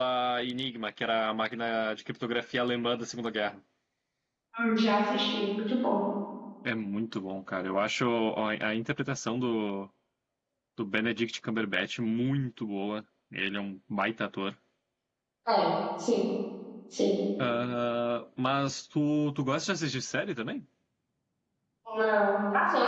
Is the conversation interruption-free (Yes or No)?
Yes